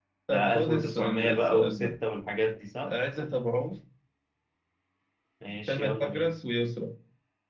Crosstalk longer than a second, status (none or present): present